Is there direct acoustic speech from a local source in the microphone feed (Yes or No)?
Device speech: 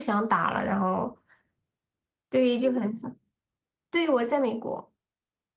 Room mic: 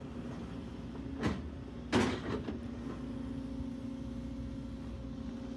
No